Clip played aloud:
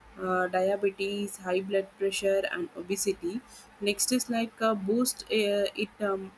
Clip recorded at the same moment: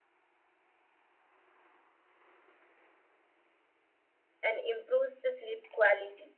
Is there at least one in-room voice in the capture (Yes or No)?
Yes